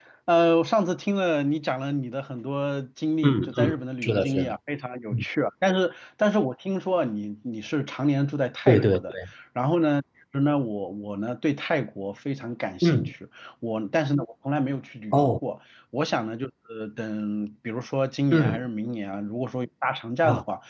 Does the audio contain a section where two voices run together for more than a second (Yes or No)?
Yes